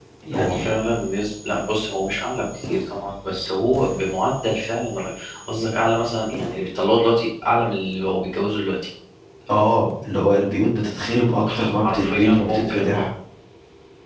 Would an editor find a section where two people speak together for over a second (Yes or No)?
Yes